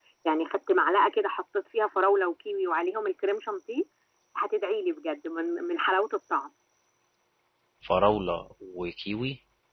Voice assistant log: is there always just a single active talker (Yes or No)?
Yes